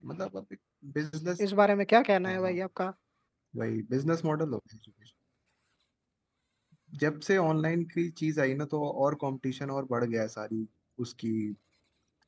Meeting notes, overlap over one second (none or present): none